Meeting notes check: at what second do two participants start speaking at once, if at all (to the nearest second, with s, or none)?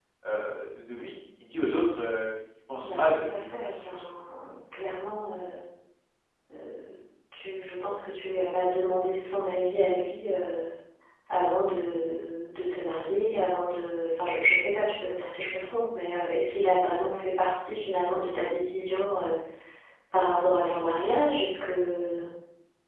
3 s